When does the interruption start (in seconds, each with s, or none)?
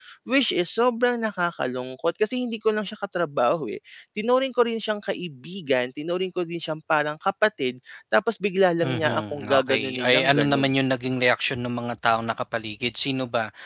8.8 s